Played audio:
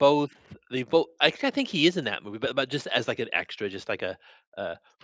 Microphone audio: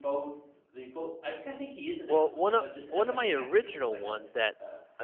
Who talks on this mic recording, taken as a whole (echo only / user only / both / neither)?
both